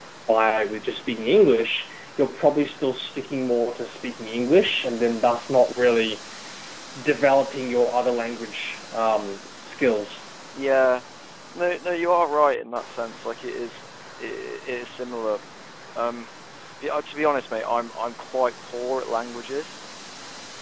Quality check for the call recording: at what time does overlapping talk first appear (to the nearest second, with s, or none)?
none